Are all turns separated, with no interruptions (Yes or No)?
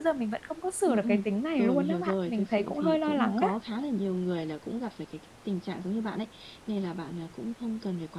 No